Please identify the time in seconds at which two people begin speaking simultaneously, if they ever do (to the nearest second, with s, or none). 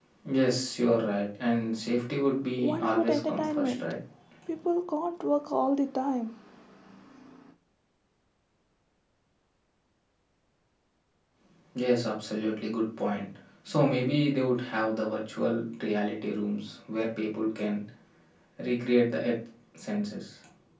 3 s